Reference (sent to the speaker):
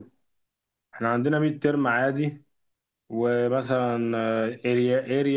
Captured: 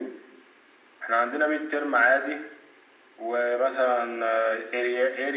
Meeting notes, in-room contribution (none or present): none